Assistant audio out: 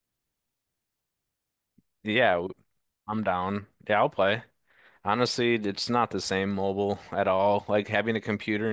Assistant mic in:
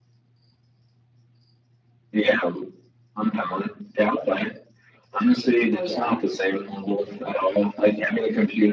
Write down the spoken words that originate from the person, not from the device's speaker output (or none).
Oh yeah.